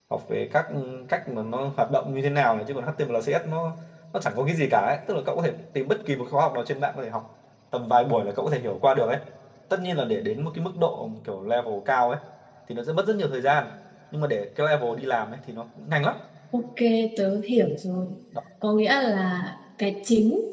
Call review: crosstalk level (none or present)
none